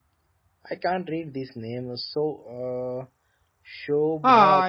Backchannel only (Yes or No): No